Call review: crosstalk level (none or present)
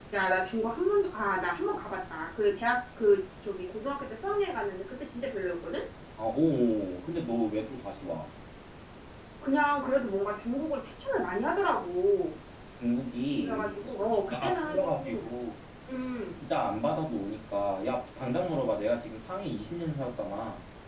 present